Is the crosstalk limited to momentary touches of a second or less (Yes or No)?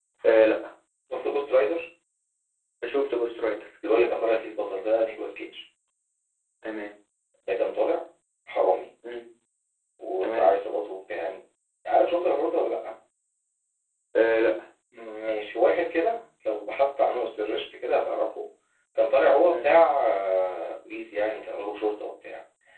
Yes